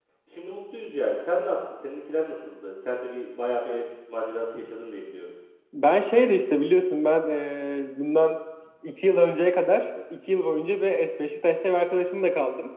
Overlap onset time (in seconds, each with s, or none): none